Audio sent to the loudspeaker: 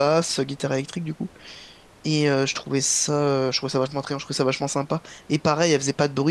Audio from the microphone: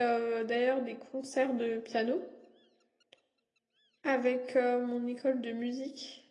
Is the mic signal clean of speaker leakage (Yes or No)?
Yes